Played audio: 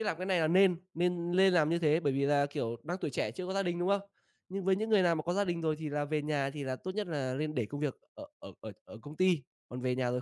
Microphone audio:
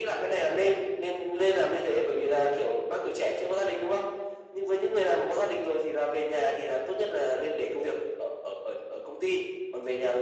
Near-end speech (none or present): none